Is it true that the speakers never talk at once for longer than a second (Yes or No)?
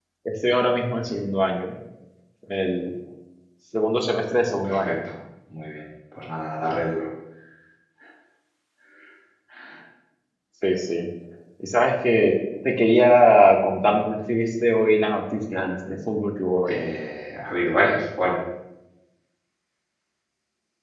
Yes